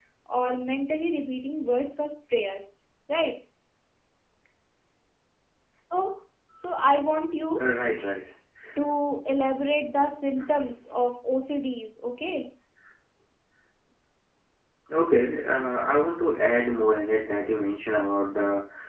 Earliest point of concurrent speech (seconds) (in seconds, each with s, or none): none